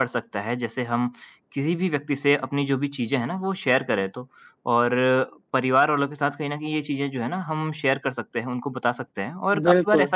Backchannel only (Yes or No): Yes